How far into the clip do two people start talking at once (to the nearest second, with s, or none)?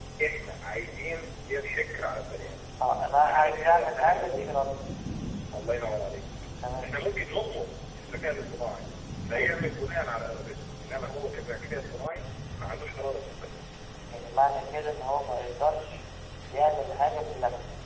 3 s